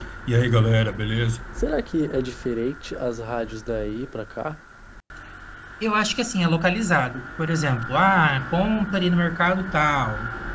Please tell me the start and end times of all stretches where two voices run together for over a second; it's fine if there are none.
none

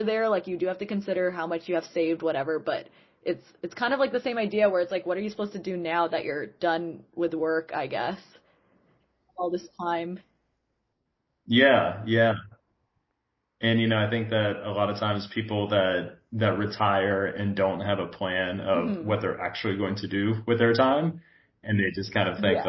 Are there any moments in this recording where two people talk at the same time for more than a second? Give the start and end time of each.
none

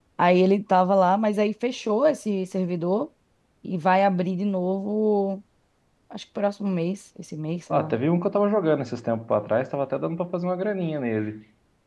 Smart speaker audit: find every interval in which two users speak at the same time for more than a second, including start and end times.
none

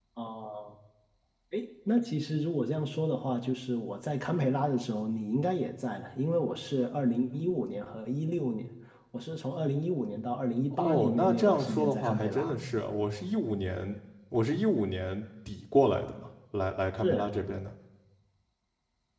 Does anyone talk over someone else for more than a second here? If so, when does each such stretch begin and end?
10.7-12.6

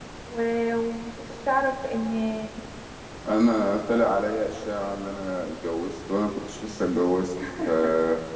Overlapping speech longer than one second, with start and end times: none

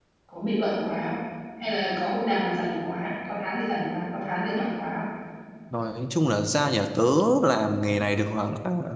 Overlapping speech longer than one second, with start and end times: none

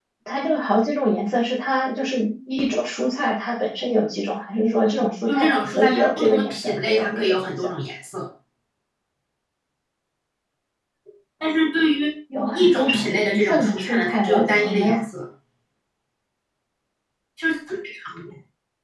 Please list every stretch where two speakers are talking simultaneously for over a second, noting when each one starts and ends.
4.8-7.4, 12.5-15.0

